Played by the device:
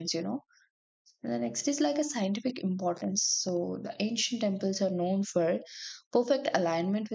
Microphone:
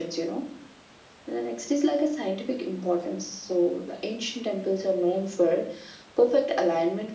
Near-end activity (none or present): none